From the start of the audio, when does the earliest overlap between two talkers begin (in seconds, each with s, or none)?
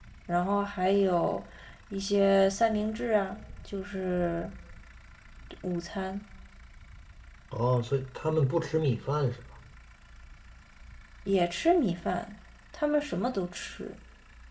none